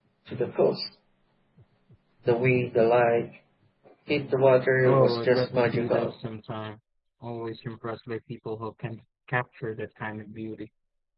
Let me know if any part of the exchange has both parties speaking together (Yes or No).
Yes